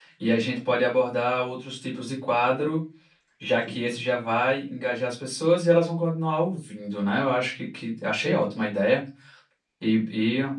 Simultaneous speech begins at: none

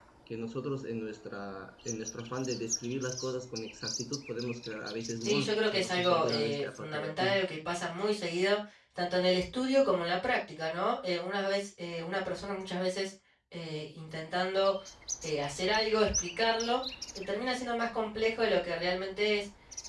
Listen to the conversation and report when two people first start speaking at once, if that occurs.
5.2 s

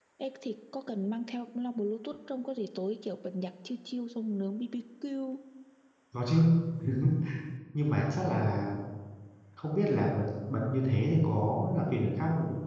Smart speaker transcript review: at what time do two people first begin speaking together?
none

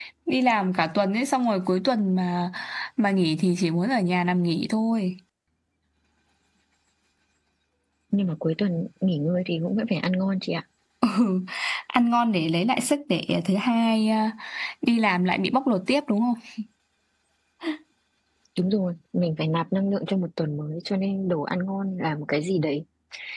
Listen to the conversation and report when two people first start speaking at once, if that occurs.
none

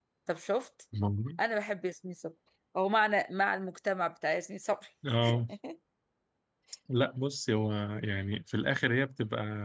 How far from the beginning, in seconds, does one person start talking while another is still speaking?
none

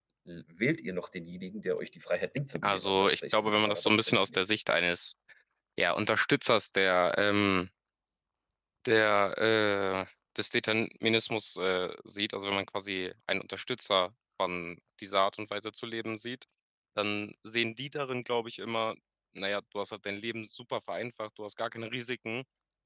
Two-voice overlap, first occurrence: 2.5 s

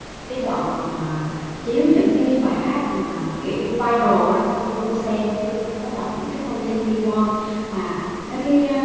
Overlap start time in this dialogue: none

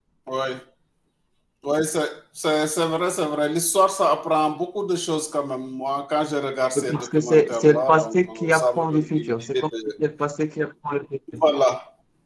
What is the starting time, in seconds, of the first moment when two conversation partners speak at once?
6.8 s

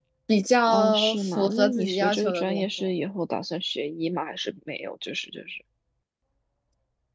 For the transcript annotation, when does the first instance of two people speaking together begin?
0.7 s

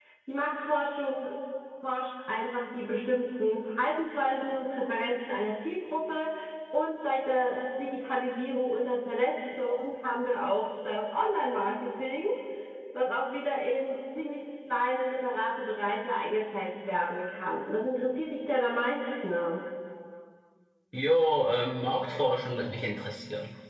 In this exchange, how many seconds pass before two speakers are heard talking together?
none

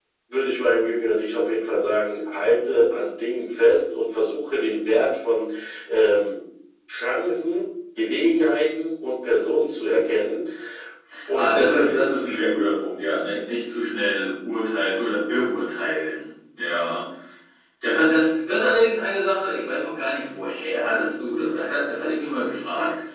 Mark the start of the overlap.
11.3 s

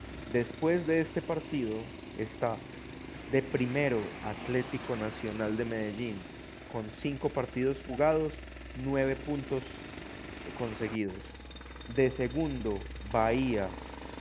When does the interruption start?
none

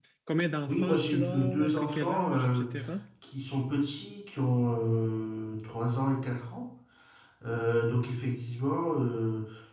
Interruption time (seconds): 0.7 s

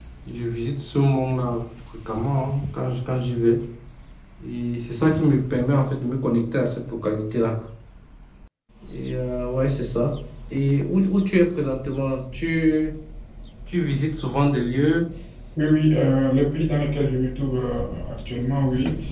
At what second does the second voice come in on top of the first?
none

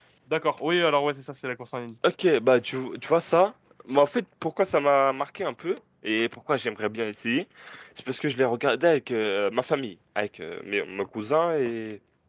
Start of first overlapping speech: none

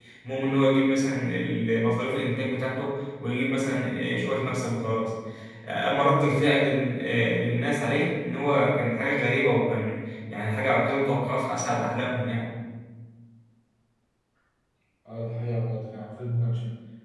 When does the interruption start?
none

